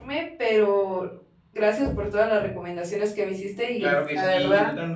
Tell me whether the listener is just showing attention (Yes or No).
No